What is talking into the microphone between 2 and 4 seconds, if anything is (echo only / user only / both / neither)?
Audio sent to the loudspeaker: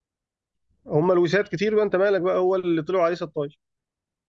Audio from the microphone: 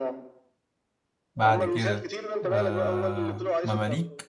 both